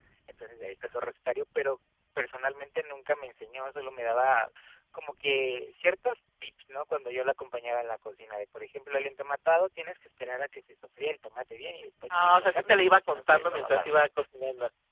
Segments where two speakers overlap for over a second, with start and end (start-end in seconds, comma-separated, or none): 12.1-13.9